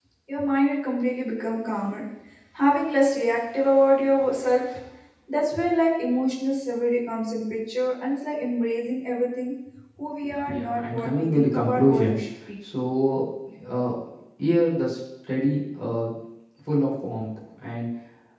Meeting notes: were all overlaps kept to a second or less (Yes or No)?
No